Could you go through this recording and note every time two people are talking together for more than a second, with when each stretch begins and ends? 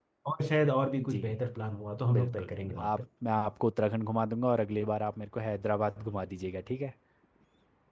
none

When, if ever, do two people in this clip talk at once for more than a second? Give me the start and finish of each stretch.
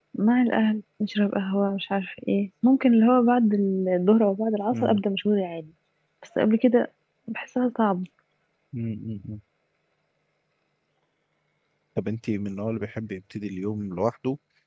none

